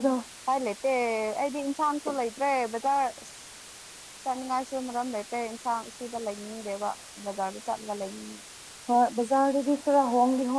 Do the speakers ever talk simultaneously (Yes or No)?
No